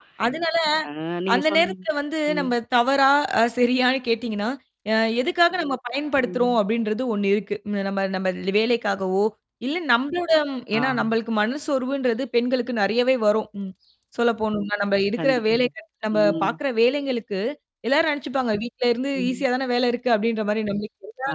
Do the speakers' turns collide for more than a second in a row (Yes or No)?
No